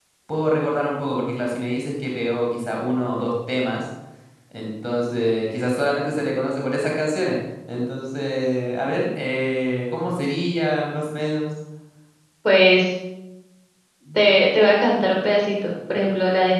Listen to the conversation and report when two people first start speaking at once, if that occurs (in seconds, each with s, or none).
none